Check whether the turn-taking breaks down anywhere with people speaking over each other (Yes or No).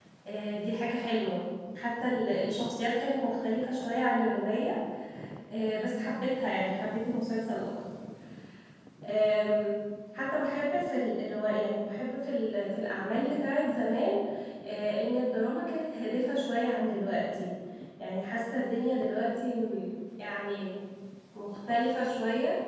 No